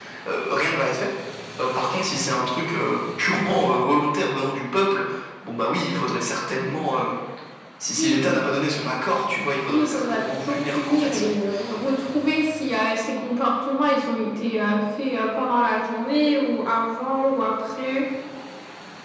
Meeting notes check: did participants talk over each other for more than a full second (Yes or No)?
Yes